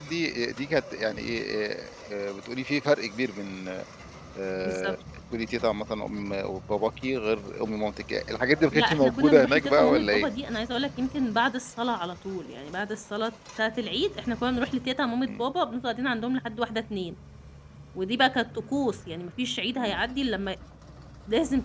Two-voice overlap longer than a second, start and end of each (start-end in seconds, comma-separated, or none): 8.7-10.3